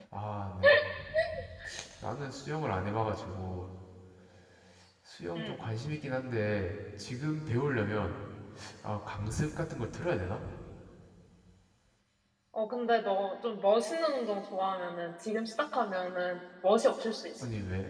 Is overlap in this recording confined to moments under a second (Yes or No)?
Yes